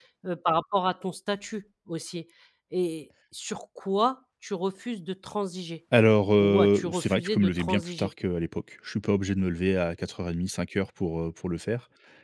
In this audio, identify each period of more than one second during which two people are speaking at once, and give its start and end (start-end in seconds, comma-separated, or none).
6.4-8.1